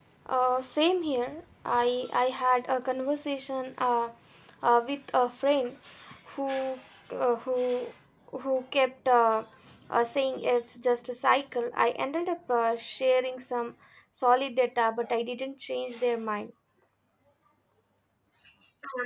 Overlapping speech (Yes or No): No